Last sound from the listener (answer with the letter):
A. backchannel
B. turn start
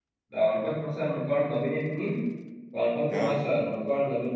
A